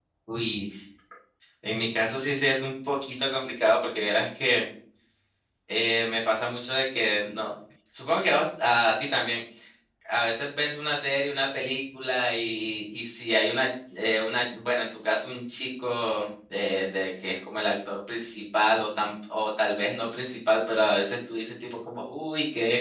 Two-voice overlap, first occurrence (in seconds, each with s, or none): none